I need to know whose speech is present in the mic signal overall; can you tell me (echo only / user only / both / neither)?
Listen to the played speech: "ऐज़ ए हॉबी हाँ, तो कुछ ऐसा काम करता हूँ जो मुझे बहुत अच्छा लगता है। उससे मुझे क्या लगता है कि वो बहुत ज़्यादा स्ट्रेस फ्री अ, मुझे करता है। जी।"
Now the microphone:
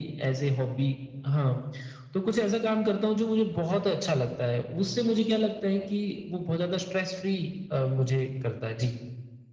echo only